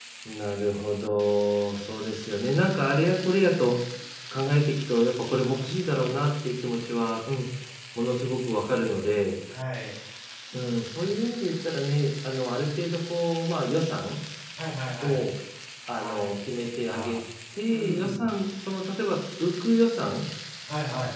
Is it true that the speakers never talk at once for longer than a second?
No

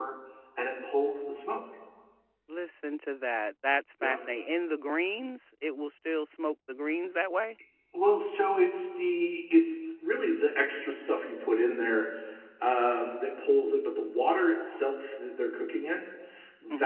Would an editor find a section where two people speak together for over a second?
No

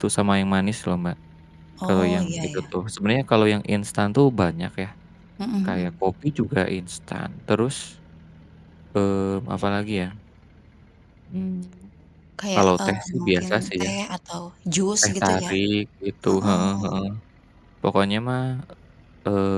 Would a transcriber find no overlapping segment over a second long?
No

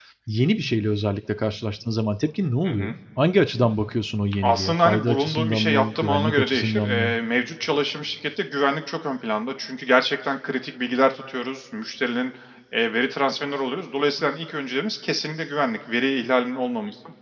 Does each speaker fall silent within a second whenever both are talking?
No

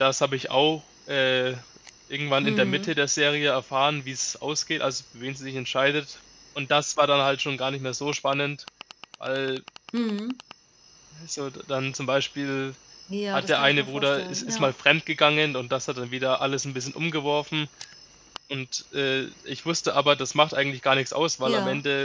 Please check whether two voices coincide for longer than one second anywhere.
Yes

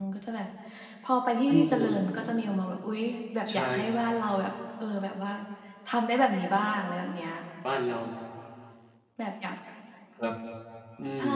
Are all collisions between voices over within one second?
Yes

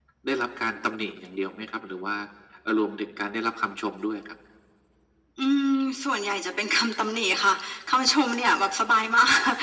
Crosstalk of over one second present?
No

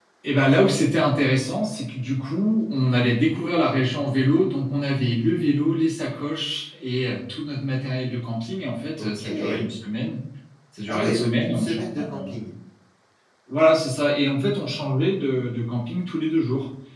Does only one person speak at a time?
No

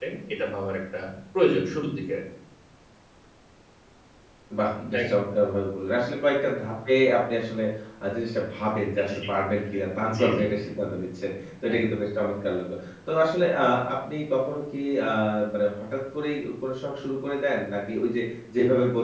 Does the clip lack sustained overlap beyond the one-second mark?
Yes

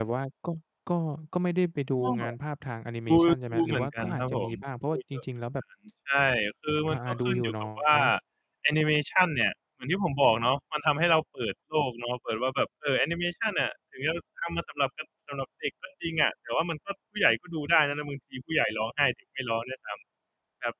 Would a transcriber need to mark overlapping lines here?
Yes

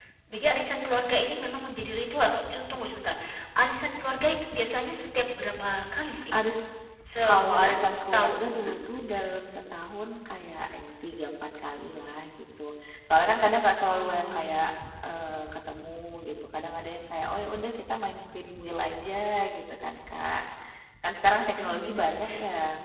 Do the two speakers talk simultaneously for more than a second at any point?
Yes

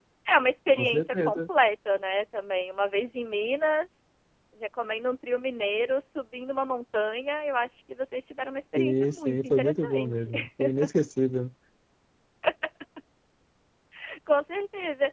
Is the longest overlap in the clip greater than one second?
Yes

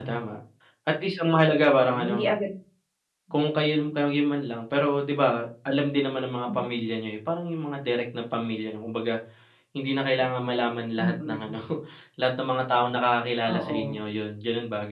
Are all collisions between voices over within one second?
Yes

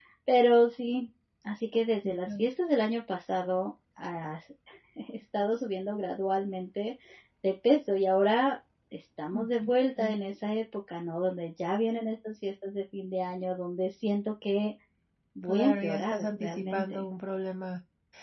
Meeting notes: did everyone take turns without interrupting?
No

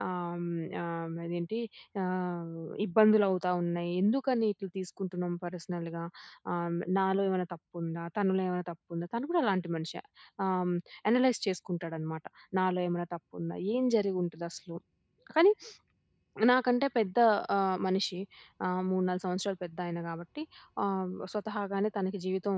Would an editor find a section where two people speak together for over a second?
No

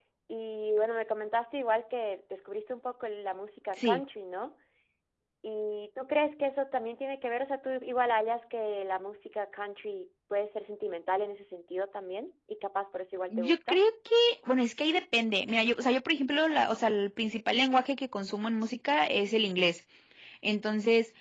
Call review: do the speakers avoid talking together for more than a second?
Yes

